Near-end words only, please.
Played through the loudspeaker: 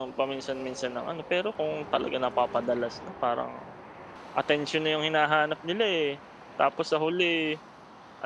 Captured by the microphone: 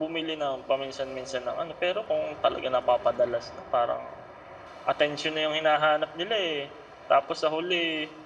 none

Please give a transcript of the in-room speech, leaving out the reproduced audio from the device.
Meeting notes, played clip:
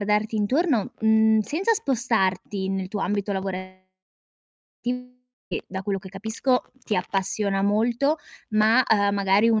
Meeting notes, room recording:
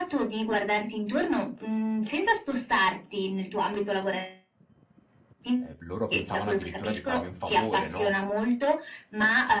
ehm, loro pensavano addirittura di farmi un favore, no.

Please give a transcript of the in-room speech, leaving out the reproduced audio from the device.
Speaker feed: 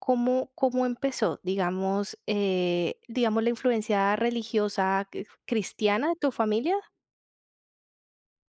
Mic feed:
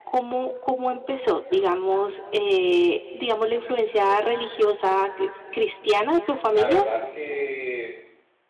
la verdad que

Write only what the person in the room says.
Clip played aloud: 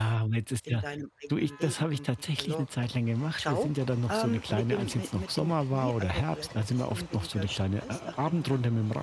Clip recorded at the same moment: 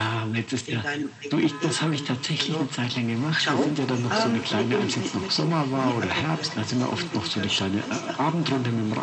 Mhm. Frische Luft.

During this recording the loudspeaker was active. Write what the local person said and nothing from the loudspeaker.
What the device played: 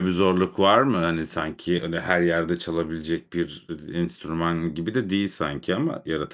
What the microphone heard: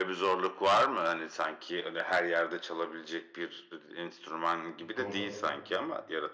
Hı, doğru.

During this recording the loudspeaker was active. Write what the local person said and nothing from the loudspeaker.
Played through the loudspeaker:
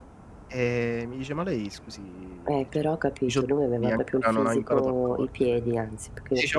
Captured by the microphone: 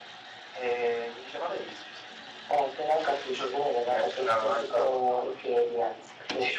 none

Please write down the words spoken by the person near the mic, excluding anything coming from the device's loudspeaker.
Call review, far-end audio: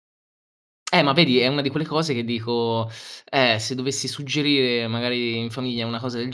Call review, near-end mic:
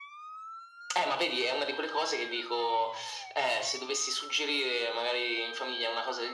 none

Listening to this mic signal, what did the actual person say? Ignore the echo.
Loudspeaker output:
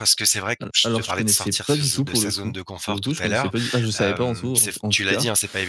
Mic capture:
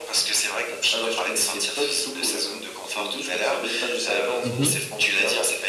Mmh mh.

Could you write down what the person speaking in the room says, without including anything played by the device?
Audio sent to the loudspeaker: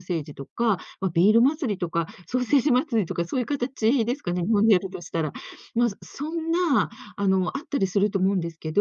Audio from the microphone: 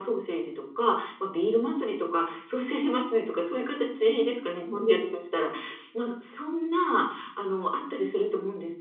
none

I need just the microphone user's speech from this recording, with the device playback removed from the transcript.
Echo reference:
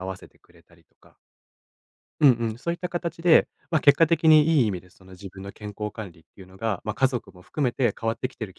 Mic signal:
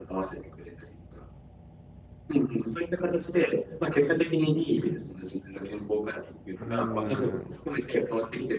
うーん。

